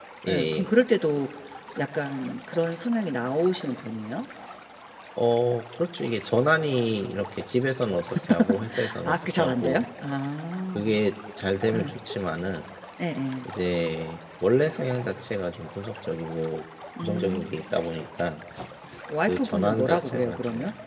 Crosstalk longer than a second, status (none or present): present